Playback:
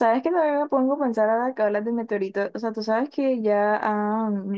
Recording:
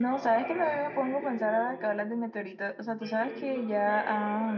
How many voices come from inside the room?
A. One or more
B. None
A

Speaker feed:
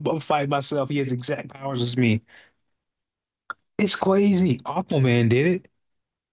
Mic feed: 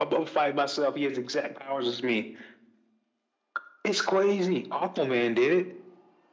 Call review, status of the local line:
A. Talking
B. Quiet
B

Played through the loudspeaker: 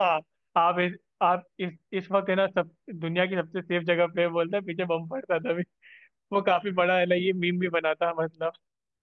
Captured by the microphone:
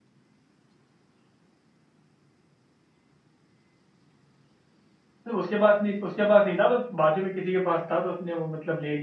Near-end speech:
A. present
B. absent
A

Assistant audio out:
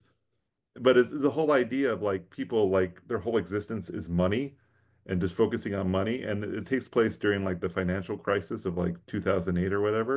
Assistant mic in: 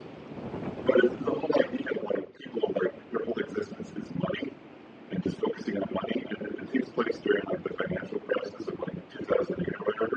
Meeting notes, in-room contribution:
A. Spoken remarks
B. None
B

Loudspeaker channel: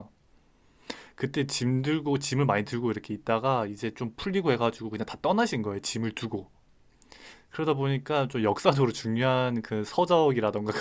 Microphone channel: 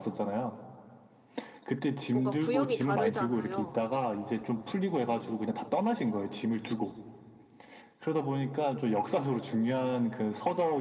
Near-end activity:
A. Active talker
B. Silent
A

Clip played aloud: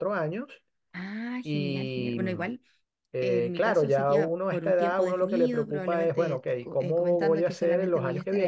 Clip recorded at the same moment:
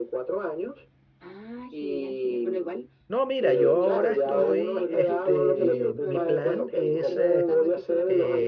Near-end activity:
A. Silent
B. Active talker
B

